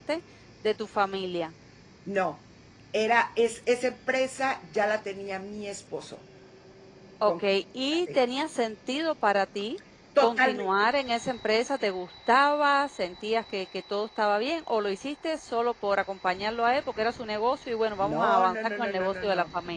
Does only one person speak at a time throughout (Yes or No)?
No